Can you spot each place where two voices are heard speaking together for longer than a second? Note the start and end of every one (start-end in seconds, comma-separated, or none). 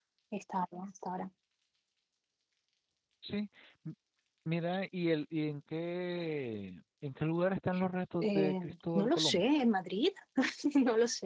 8.2-9.4